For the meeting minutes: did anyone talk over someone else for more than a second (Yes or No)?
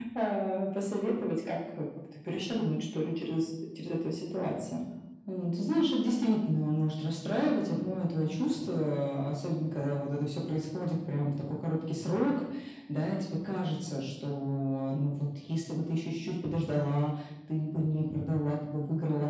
No